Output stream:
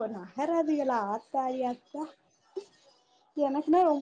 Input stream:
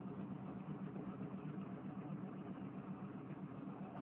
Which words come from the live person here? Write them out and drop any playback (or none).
none